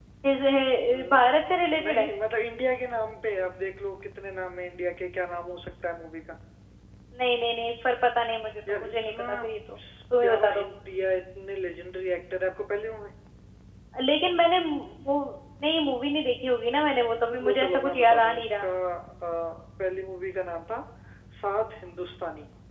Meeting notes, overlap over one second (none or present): present